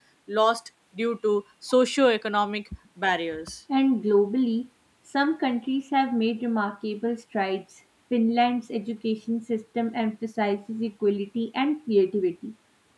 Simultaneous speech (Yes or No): No